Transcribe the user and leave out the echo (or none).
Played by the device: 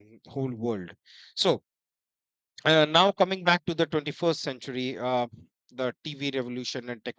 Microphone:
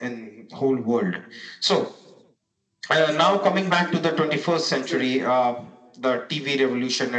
That's how I guess the cricket World Cup itself